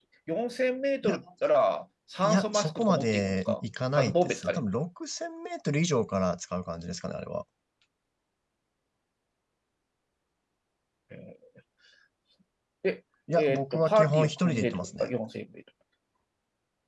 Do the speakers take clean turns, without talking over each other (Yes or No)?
No